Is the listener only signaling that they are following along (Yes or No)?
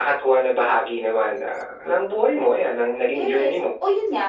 No